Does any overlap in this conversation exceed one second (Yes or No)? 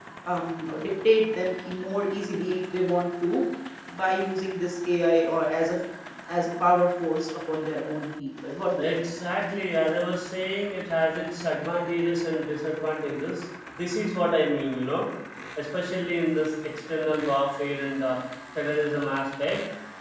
No